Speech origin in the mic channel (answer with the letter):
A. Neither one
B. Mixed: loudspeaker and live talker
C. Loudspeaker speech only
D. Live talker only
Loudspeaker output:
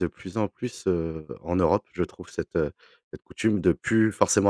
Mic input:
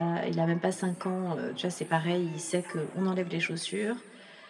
D